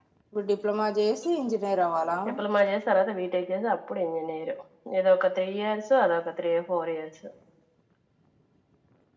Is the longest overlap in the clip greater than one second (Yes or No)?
No